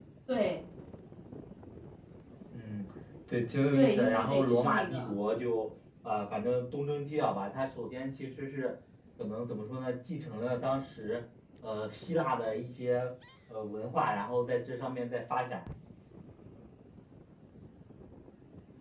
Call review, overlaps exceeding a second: present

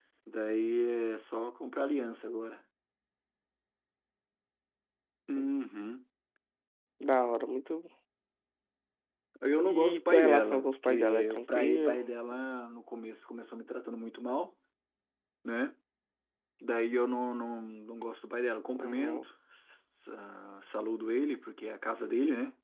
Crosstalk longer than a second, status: present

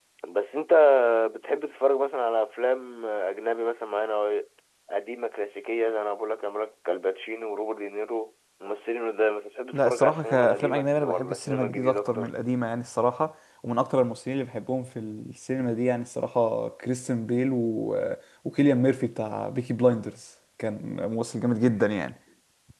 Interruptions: present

